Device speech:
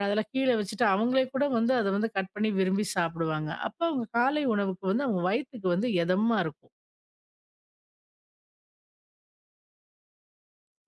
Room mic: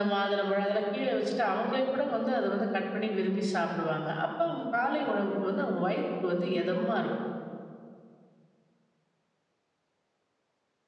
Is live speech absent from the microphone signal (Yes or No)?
Yes